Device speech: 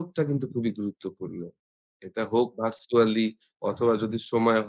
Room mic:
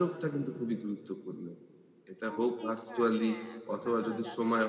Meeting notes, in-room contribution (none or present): present